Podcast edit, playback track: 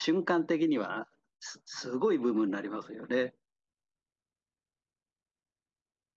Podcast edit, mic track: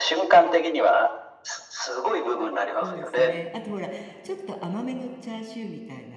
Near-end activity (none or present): present